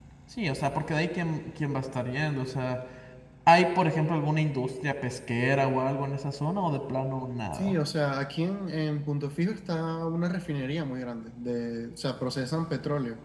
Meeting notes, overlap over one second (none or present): none